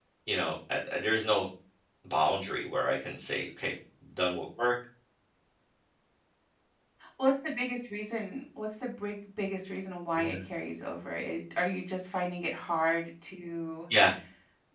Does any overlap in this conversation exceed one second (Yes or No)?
No